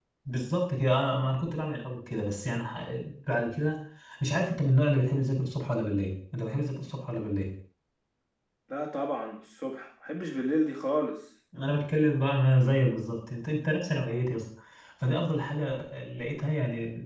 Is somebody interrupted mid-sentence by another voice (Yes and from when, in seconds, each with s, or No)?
No